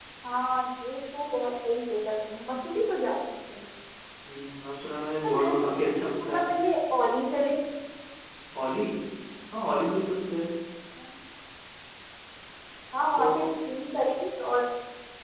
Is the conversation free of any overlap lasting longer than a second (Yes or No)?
No